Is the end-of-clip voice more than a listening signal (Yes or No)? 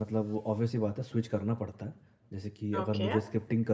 No